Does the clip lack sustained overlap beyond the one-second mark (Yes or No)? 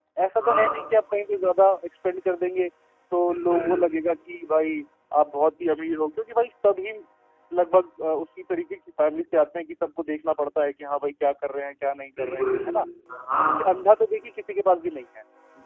Yes